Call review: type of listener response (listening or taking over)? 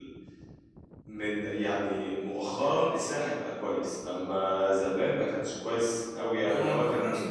taking over